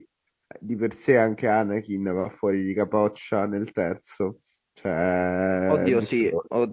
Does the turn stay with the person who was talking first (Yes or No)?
No